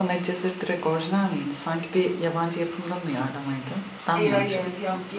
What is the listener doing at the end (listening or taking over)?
taking over